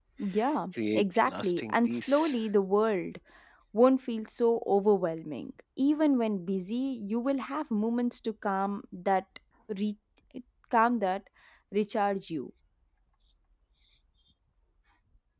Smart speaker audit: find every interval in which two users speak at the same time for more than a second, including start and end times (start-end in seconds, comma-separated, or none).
0.9-2.4